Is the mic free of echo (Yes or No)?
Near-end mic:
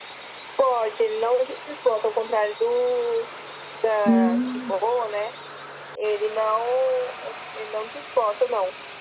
No